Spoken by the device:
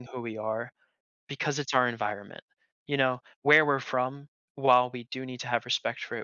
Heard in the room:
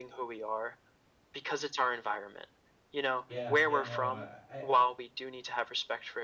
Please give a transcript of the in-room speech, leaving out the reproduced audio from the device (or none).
Yeah, yeah, no, uh, I